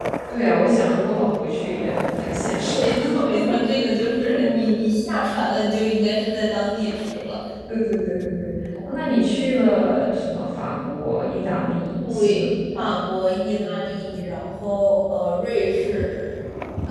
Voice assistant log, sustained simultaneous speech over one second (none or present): none